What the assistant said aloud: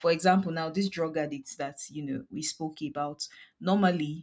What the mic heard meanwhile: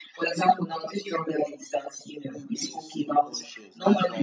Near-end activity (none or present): present